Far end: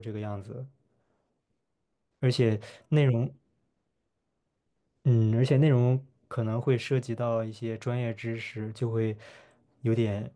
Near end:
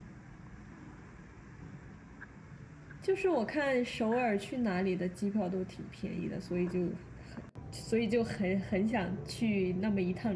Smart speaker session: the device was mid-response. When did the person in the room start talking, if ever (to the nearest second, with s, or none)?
3 s